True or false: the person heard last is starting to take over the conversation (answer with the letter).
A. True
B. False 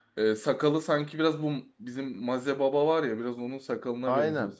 A